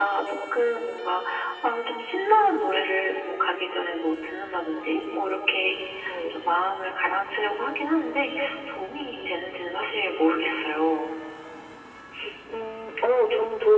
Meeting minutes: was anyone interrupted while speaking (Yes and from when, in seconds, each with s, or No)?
No